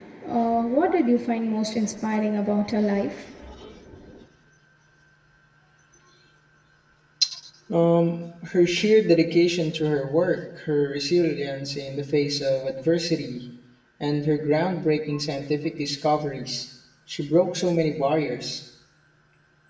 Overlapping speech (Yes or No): No